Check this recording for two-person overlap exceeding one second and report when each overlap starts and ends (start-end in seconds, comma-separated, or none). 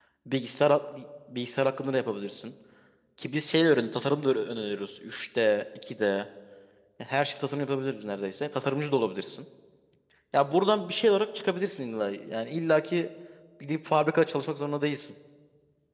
none